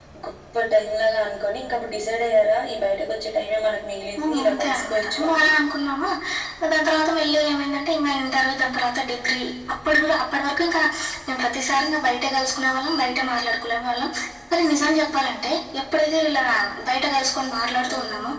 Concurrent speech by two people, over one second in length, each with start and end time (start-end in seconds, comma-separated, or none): 4.2-5.5